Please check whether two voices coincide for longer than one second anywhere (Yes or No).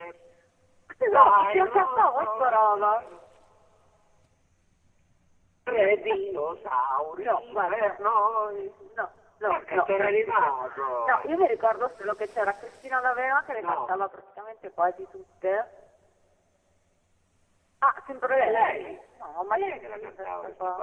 Yes